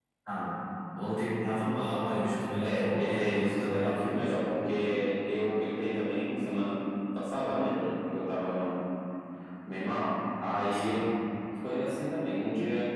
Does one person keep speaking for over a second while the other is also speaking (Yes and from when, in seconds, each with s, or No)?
Yes, from 2.6 s